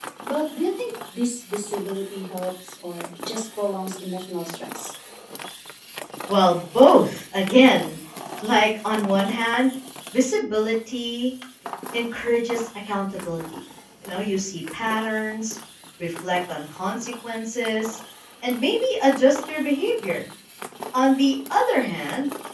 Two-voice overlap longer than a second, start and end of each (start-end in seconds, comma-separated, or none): none